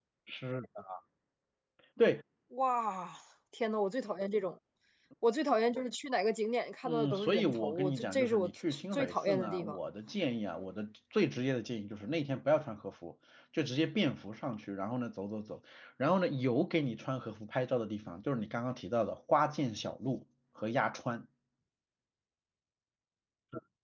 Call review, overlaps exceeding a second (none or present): present